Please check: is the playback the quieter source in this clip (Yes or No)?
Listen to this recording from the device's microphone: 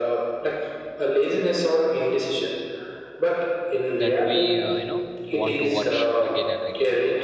No